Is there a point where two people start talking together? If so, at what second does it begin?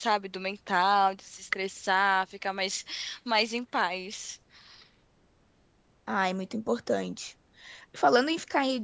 none

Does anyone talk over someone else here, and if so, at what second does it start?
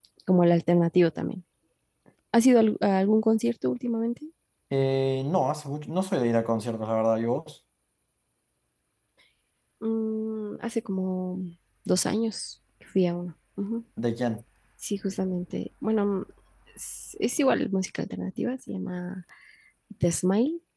none

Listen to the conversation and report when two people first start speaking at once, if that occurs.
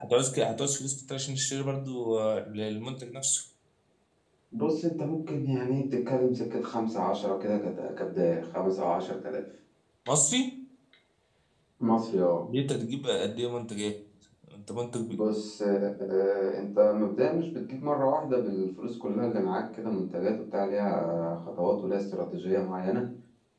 none

